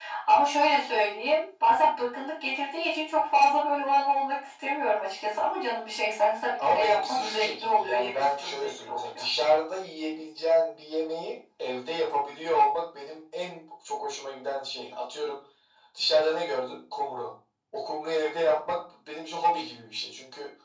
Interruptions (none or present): present